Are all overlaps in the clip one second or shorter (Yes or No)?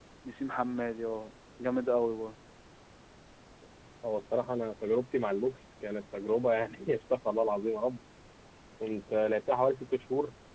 Yes